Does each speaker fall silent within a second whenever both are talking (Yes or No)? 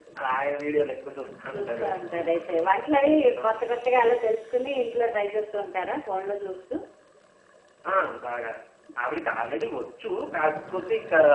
Yes